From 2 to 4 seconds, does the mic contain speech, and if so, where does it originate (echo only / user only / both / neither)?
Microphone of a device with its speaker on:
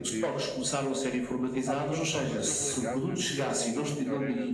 both